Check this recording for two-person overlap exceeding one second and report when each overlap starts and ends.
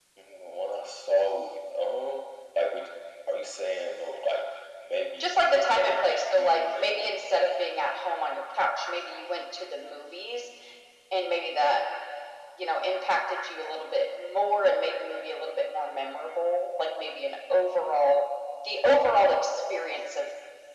5.2-7.2

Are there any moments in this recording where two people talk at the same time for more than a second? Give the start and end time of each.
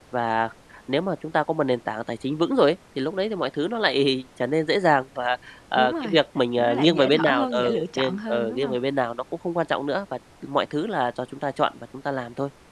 6.6-8.8

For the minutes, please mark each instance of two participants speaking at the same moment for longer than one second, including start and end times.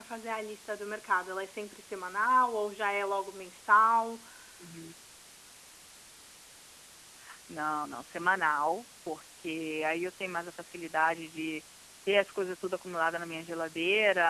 none

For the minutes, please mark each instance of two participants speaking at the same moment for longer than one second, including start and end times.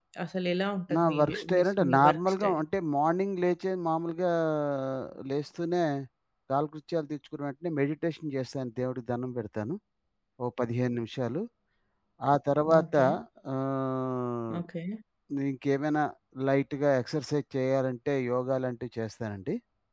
0.9-2.6

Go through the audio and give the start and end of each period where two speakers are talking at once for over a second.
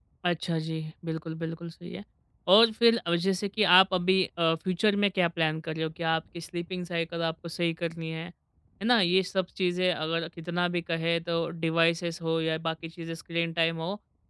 none

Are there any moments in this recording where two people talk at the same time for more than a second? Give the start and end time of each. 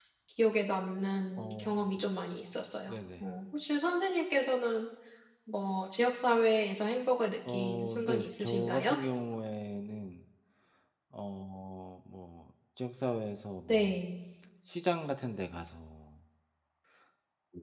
7.5-9.0

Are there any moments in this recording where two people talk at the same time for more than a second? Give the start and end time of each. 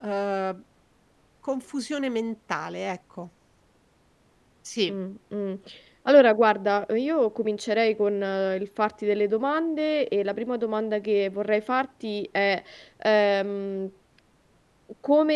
none

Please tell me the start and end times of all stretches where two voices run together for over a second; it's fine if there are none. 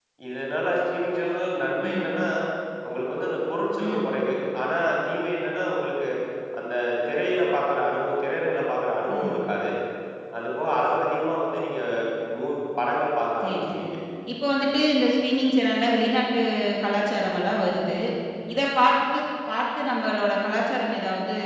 none

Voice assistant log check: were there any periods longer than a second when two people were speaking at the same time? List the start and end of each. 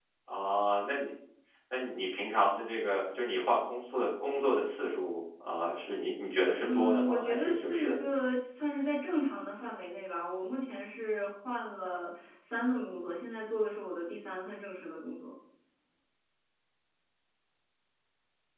6.6-8.0

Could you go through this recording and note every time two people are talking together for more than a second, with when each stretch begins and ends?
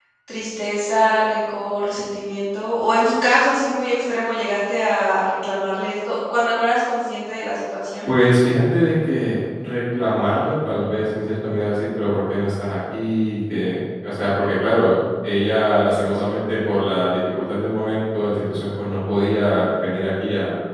none

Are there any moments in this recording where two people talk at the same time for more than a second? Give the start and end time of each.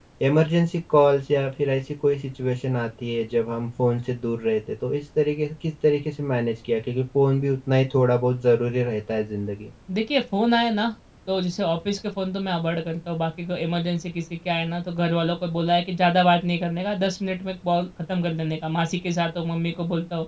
none

